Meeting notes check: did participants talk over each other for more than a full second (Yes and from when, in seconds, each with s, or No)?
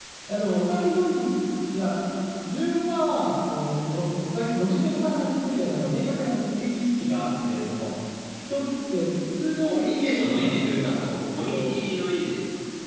Yes, from 9.6 s